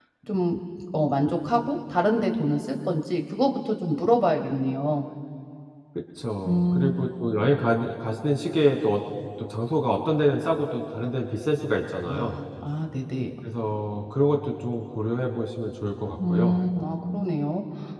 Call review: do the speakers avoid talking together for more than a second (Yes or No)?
Yes